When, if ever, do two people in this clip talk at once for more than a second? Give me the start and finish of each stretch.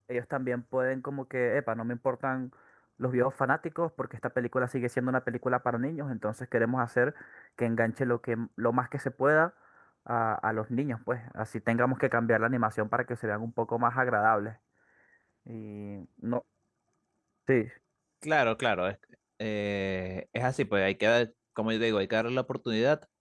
none

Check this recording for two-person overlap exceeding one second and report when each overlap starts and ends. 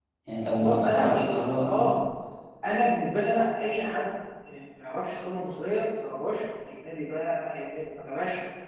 0.6-1.9

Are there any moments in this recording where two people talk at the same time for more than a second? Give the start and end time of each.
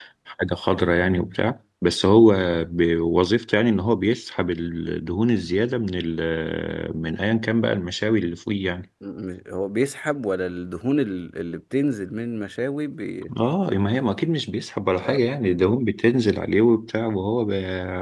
none

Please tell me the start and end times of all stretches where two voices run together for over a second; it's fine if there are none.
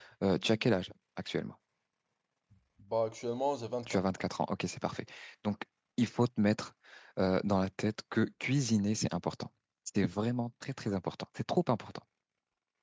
none

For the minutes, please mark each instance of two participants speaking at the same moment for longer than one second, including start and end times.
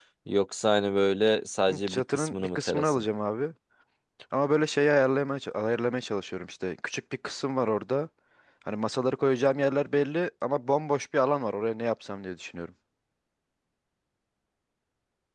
1.7-3.0

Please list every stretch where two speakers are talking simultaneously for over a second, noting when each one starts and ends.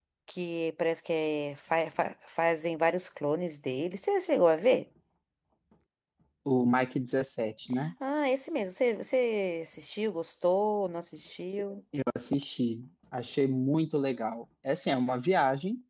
none

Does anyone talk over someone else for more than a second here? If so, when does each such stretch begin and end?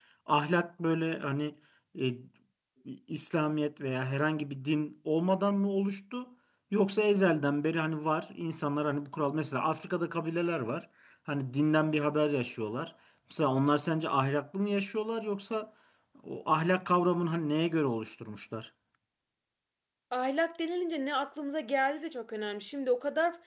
none

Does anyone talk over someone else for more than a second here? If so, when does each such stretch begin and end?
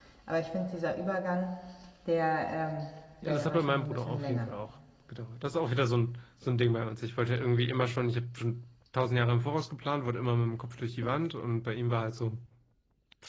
3.2-4.5

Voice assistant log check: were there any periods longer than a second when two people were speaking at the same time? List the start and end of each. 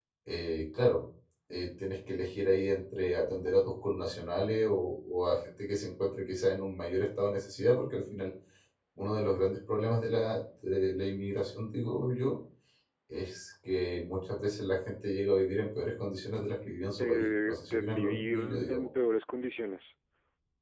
17.0-18.9

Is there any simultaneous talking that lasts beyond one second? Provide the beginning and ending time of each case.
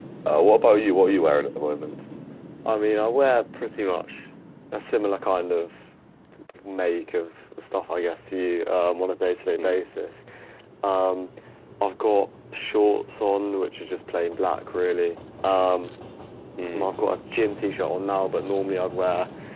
none

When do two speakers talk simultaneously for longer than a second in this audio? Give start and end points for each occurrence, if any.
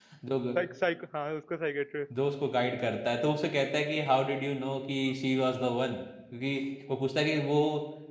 none

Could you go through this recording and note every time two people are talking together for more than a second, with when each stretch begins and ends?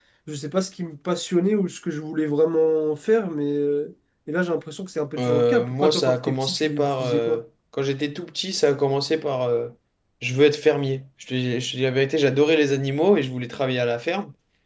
5.2-7.4

